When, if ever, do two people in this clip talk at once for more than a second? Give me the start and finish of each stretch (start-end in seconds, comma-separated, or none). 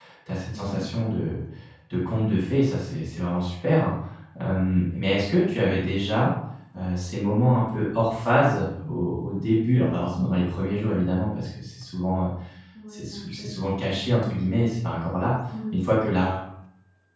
12.9-14.3